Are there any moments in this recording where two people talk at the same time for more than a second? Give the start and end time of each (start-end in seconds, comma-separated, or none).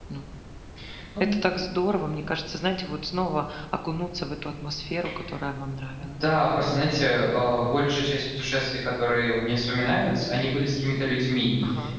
none